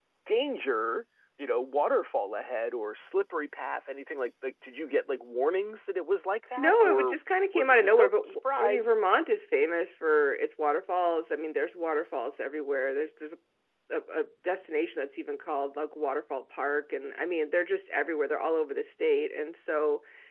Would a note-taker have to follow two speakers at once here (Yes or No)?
Yes